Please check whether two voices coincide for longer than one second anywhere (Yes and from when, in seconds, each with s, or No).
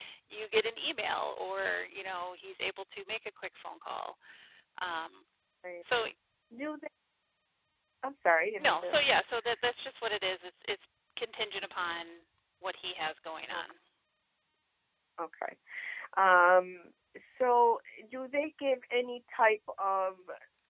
No